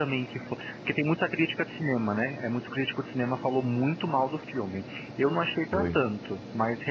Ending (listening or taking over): listening